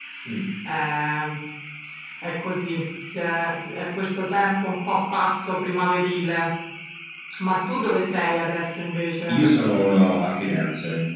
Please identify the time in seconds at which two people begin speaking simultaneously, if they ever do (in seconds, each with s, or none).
none